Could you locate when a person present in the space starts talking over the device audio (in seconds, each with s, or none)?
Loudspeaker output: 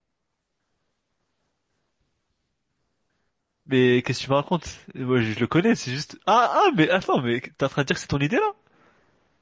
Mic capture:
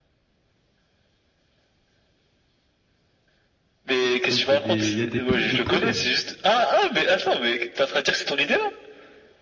4.2 s